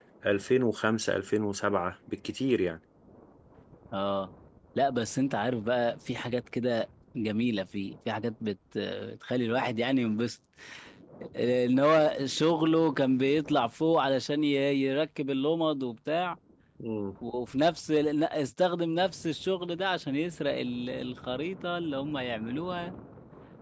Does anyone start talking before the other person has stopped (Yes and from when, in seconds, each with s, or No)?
No